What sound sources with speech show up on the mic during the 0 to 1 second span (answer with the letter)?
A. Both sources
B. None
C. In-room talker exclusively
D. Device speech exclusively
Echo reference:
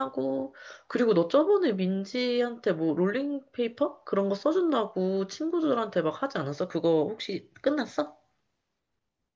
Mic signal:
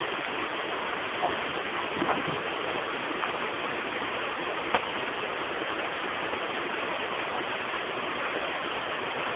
B